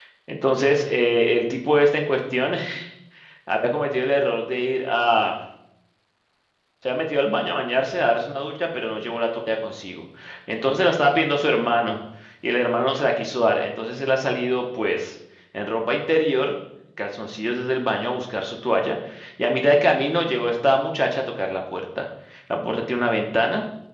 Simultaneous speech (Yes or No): No